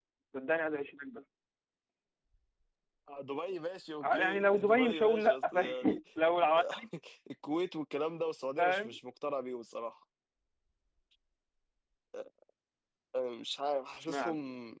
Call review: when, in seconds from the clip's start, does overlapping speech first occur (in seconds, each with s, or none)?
4.0 s